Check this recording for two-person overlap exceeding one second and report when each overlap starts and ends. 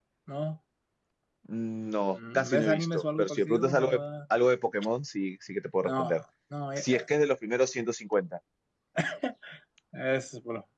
2.4-4.0

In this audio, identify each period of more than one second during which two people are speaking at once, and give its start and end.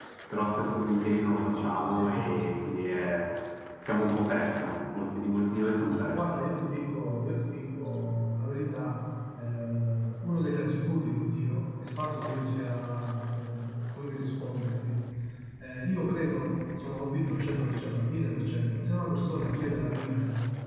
none

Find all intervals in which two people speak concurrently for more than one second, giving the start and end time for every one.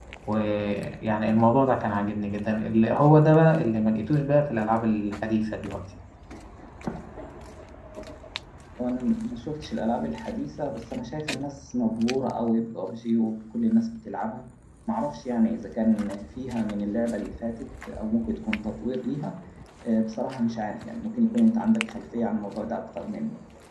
none

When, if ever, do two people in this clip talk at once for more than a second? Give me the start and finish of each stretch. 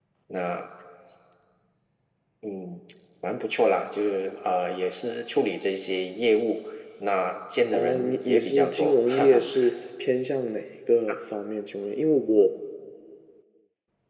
7.7-9.5

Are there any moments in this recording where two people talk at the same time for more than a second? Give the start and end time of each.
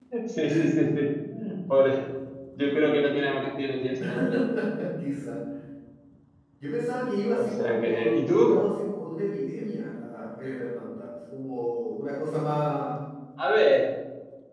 7.4-8.6

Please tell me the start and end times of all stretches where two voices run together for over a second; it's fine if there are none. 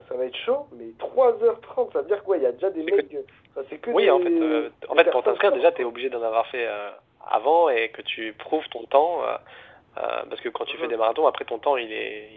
3.9-5.9

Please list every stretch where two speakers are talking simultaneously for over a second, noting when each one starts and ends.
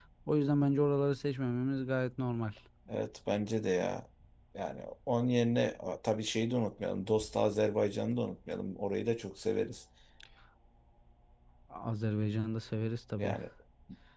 none

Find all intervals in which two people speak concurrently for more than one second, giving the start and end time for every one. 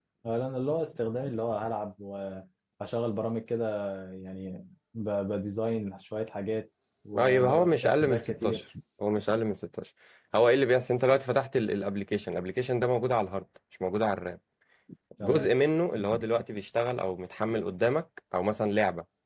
7.2-8.6

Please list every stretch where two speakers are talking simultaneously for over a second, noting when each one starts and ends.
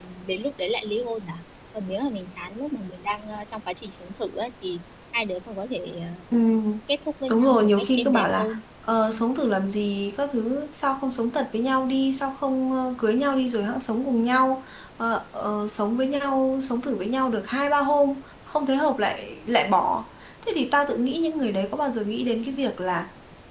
7.3-8.6

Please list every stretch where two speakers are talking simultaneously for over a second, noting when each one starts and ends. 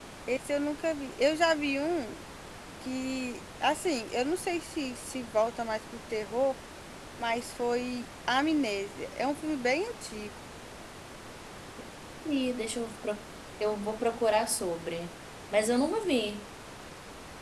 none

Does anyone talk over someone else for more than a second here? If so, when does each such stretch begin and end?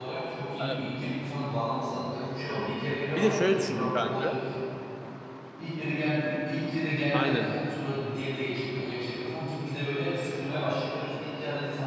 3.1-4.3

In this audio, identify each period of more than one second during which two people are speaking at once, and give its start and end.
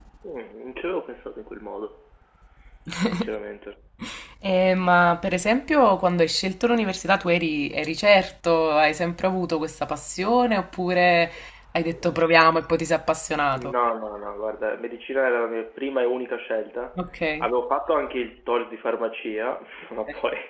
none

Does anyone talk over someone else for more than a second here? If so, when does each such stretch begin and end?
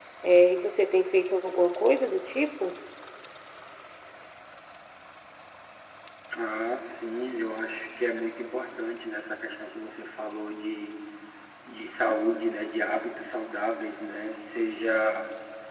none

